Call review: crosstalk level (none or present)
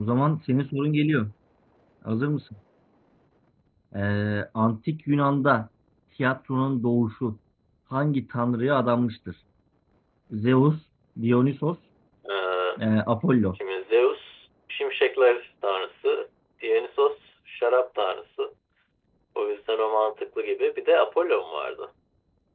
none